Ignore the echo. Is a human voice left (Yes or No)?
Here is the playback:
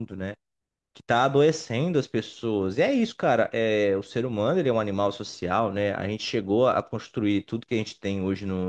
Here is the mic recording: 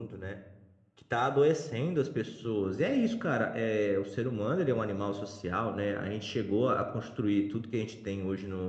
No